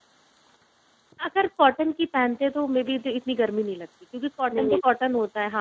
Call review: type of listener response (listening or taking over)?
listening